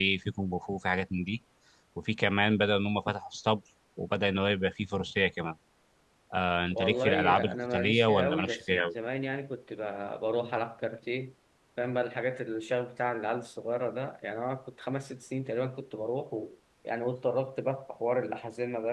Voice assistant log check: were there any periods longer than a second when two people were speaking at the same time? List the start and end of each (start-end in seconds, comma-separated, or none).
6.7-8.8